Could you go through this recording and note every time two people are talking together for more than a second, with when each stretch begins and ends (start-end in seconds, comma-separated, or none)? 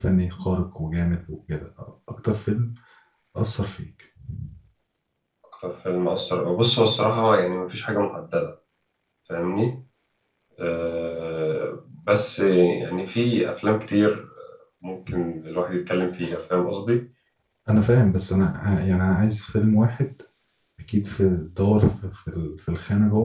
none